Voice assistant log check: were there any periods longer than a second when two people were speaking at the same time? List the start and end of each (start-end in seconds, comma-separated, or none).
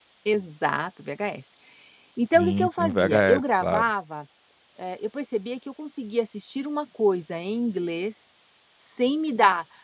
2.3-3.9